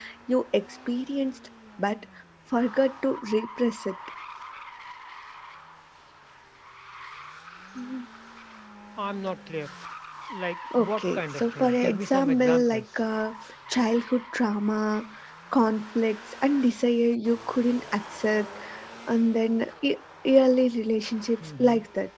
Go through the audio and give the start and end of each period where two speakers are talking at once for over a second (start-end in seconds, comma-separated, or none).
10.8-12.8